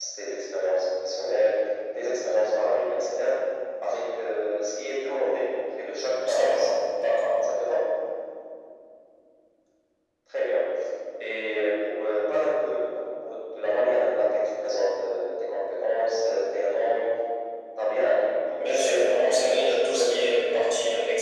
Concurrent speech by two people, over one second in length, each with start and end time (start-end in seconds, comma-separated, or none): 18.7-20.2